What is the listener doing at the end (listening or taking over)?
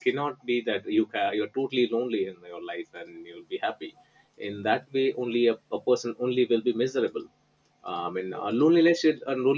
listening